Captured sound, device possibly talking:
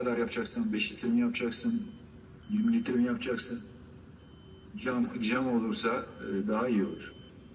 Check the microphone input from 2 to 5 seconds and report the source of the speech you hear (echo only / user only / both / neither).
echo only